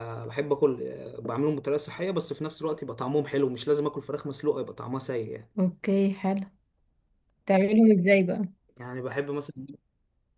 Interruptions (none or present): none